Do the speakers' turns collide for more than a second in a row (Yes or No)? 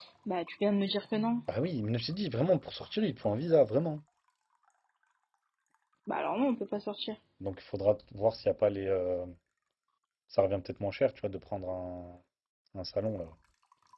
No